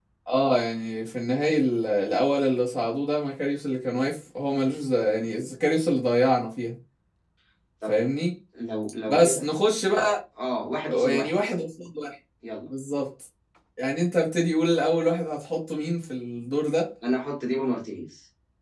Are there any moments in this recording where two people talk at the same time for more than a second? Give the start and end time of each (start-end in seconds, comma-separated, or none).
none